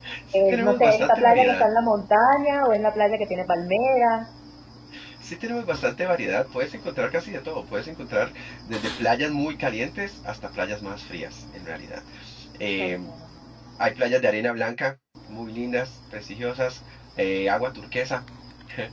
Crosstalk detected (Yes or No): Yes